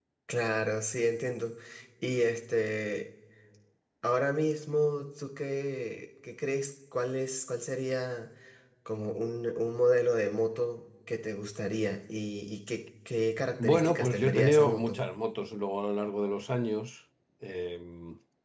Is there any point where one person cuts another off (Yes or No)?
Yes